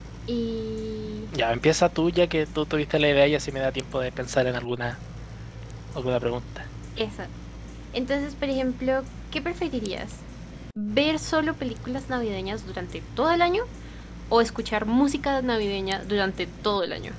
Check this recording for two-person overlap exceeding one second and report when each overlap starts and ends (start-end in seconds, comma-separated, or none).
none